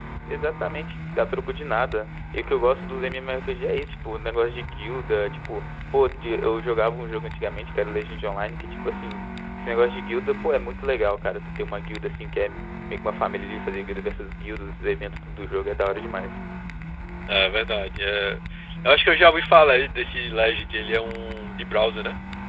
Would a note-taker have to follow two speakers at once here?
No

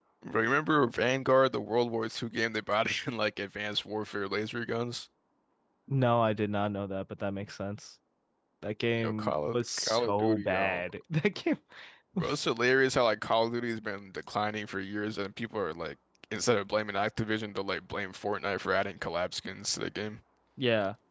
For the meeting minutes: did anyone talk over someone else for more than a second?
Yes, from 9.0 s

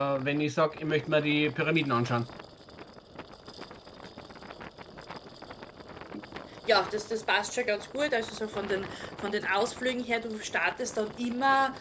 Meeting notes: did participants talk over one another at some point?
No

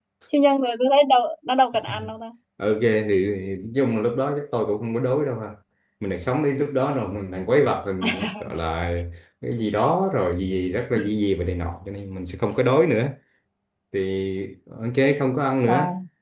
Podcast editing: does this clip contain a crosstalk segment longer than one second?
No

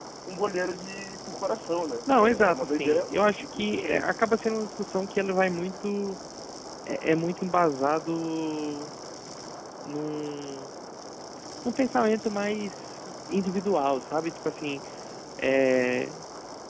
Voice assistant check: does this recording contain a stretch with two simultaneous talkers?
Yes, from 2.1 s

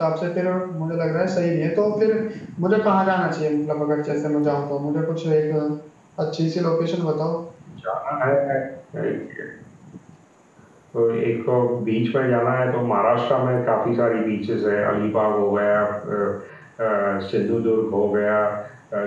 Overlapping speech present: No

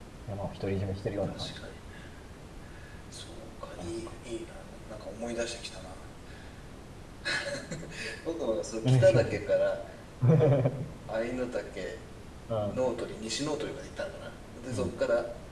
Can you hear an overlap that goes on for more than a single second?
No

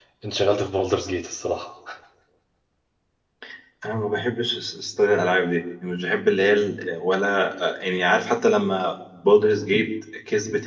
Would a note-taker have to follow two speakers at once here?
No

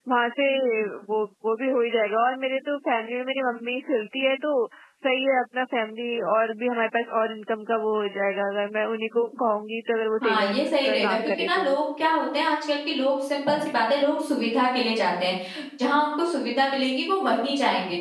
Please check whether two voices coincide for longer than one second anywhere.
Yes, from 10.2 s

